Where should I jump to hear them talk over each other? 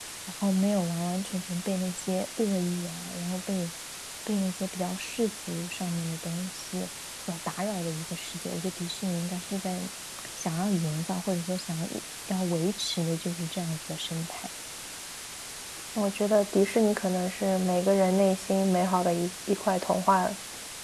none

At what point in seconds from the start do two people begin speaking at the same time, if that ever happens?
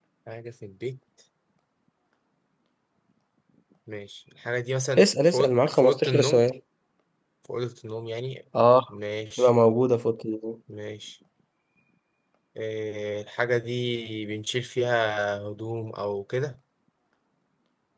5.0 s

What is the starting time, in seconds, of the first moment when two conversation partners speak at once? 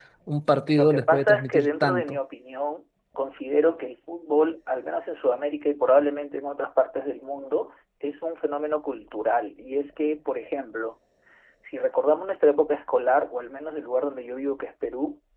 0.7 s

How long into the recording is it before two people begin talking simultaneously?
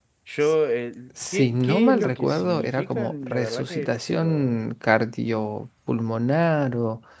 1.3 s

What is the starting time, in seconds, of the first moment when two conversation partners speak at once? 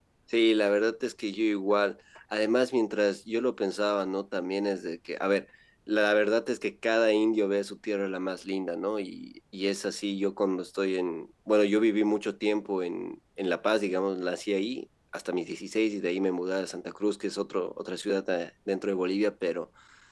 none

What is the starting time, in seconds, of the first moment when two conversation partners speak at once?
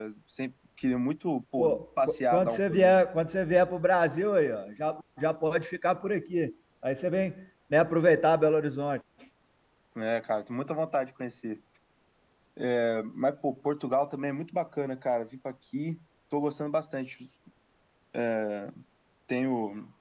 1.6 s

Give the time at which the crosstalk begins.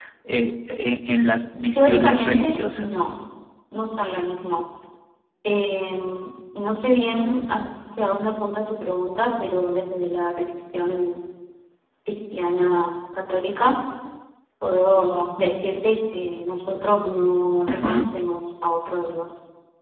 1.8 s

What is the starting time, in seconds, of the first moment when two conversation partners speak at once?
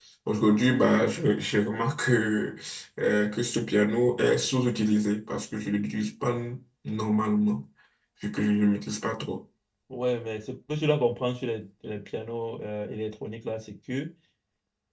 none

